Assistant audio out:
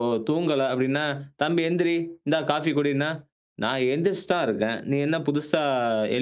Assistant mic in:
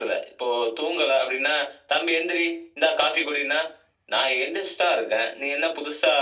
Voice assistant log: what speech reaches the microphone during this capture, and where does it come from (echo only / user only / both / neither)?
echo only